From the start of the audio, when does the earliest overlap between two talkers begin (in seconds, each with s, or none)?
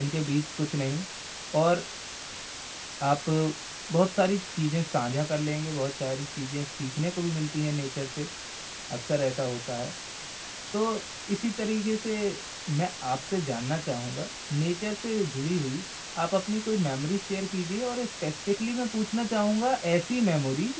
none